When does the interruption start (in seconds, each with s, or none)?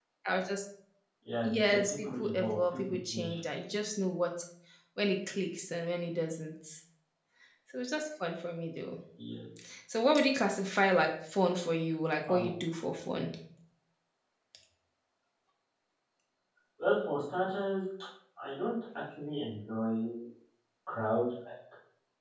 1.4 s